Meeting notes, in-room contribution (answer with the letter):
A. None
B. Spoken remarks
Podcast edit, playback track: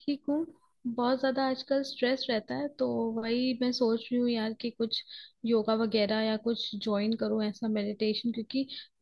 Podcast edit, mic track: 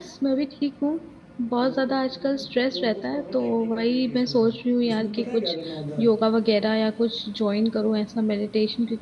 B